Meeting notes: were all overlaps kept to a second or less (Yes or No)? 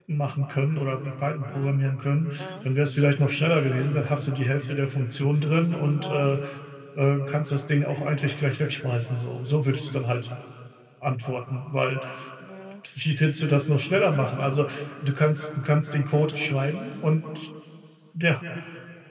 Yes